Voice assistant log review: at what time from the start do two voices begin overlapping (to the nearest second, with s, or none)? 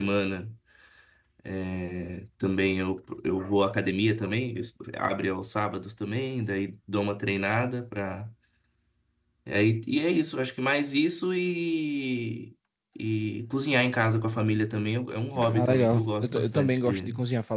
15 s